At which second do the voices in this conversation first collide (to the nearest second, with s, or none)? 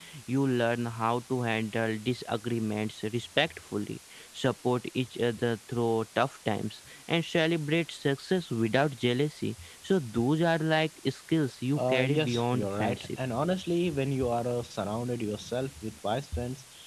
12 s